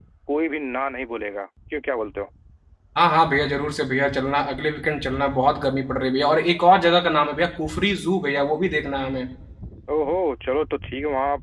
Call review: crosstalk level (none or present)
none